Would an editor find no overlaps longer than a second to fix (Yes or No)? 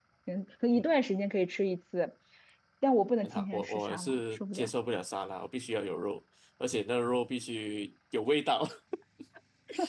No